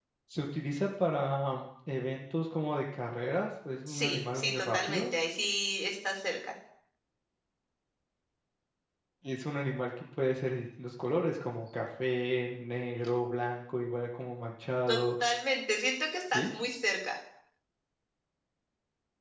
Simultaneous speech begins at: 3.9 s

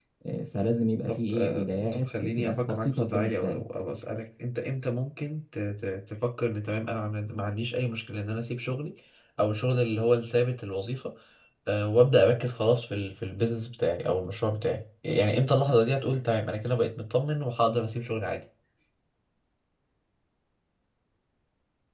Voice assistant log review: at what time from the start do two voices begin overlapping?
1.1 s

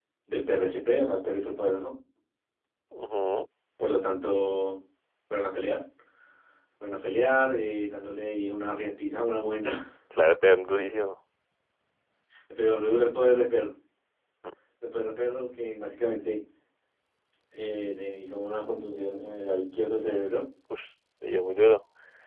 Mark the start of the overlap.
none

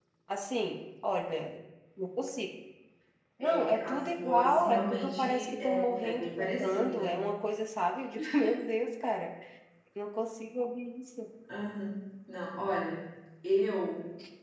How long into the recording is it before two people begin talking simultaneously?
3.4 s

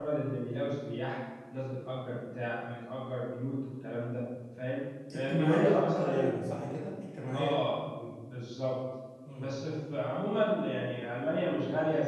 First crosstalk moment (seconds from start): 5.1 s

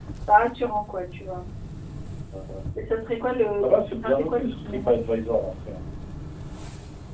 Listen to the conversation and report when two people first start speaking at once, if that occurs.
3.6 s

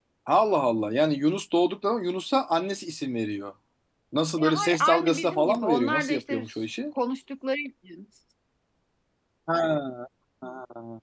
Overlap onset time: 4.4 s

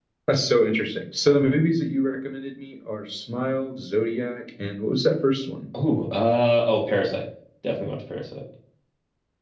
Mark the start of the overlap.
none

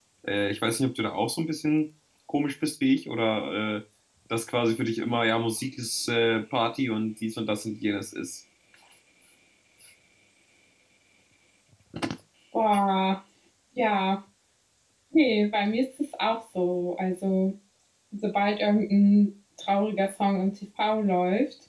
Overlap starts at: none

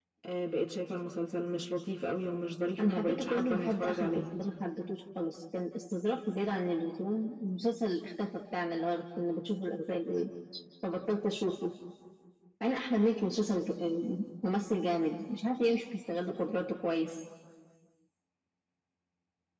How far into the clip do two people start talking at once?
2.8 s

